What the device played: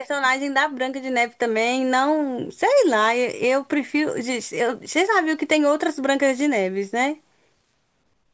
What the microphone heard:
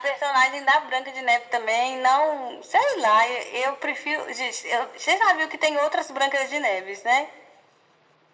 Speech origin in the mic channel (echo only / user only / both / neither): echo only